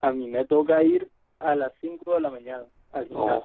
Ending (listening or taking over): taking over